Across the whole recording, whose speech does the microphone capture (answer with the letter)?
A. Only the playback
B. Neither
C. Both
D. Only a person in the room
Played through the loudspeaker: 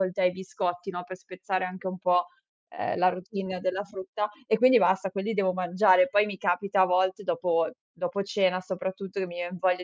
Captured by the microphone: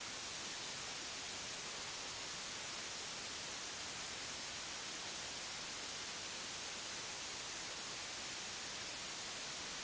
B